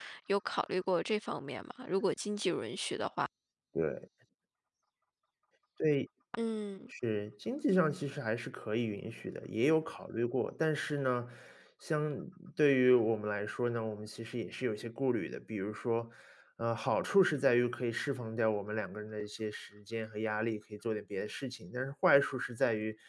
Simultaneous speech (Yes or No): No